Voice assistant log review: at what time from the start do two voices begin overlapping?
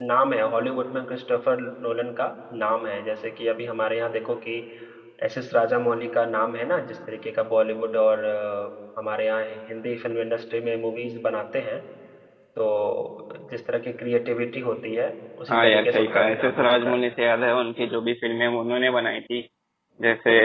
15 s

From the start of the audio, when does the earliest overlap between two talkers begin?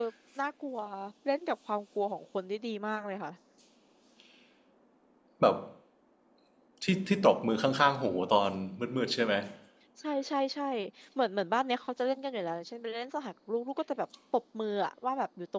none

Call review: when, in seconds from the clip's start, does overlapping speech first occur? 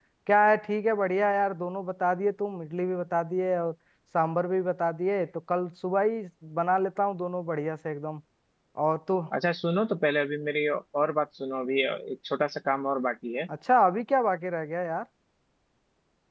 none

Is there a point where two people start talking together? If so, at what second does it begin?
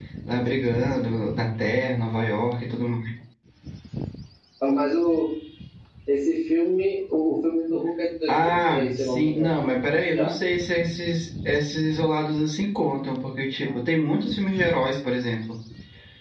8 s

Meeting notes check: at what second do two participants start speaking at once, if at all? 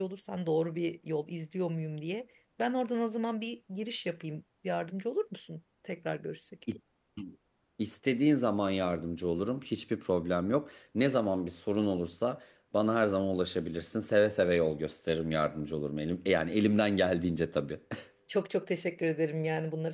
none

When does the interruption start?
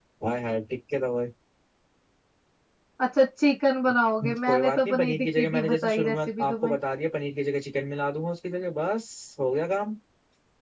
4 s

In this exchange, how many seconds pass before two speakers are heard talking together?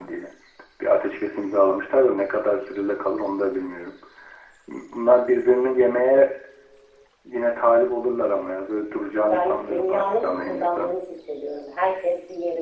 9 s

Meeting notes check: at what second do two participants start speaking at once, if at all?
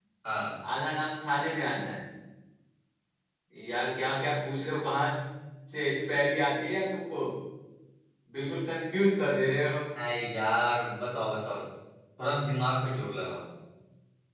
none

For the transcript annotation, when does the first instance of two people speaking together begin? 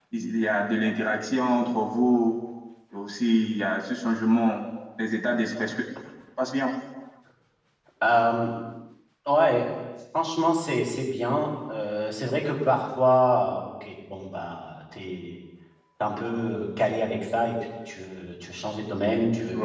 none

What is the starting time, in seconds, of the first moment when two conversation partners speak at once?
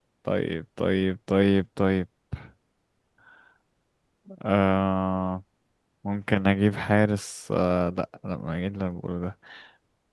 none

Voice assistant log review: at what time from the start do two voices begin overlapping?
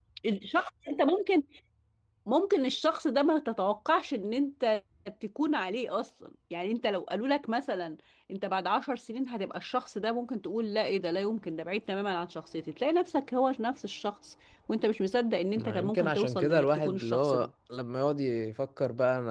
16 s

